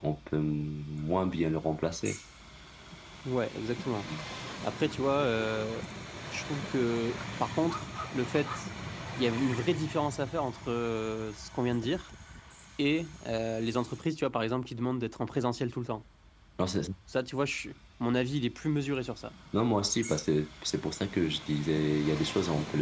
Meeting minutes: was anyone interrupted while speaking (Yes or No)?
No